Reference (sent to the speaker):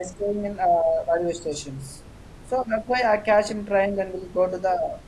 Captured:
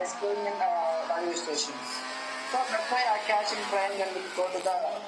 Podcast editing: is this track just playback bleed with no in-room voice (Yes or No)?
Yes